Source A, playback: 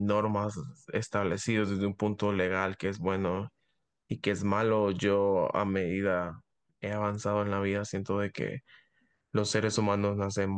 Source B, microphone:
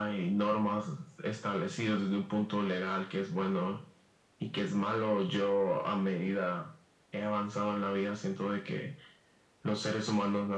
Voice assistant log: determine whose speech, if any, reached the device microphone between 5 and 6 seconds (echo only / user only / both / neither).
echo only